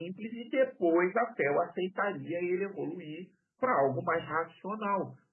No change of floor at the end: Yes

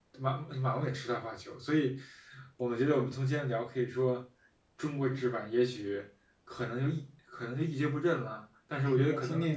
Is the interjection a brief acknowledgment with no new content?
No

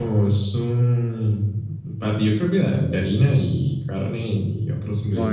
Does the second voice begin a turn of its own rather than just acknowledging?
Yes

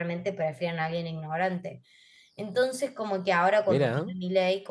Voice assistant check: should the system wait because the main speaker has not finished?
Yes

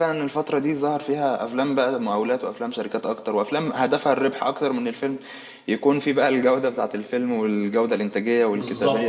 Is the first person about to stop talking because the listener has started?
Yes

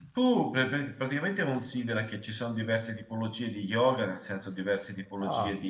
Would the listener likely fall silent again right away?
Yes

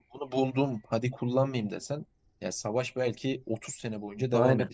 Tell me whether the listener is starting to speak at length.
No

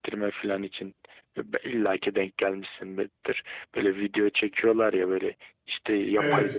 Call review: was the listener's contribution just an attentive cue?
Yes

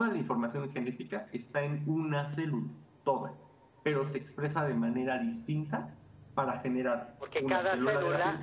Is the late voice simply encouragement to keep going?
No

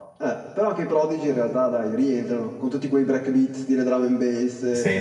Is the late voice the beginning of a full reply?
Yes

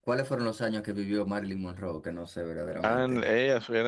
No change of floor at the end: No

